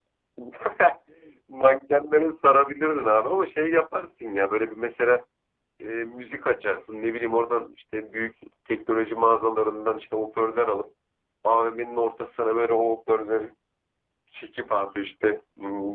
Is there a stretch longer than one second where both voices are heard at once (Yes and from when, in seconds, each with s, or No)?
No